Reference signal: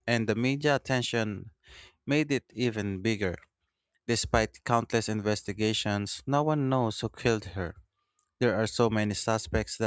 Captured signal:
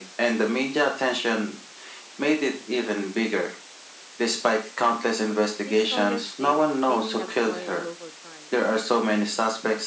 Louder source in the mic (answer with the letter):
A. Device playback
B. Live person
A